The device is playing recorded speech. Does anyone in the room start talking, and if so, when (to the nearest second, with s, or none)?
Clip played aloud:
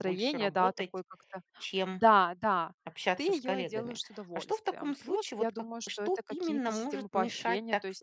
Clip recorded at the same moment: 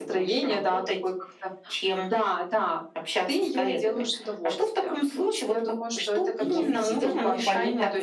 6 s